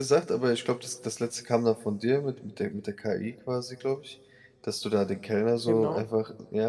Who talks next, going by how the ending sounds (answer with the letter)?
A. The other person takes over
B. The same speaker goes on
B